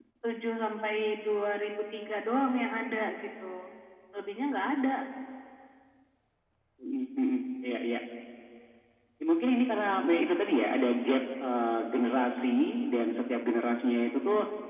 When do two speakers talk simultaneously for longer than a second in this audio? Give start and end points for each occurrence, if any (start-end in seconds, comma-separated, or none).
none